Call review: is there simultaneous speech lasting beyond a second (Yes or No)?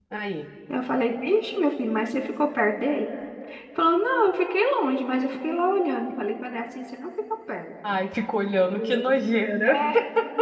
No